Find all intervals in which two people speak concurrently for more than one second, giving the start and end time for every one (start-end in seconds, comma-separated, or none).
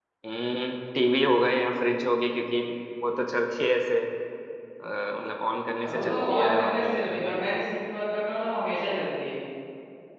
5.8-7.4